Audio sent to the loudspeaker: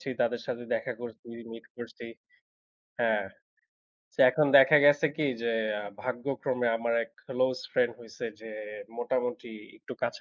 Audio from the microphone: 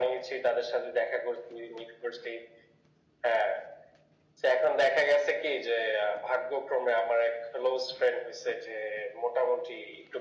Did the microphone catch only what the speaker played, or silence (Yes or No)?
Yes